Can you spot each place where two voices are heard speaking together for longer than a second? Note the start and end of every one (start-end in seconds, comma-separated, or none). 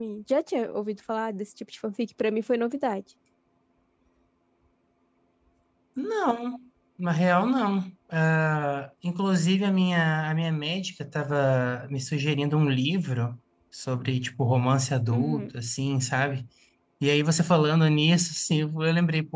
none